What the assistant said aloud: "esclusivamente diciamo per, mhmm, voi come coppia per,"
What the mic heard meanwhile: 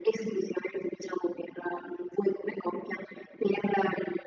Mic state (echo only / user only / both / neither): echo only